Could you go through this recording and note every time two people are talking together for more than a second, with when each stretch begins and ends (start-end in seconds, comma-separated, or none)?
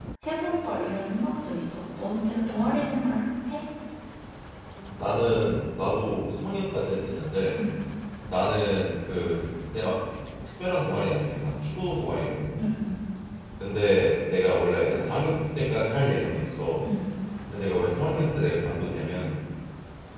none